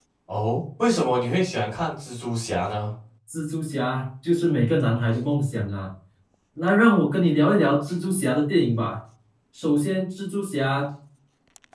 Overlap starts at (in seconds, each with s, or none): none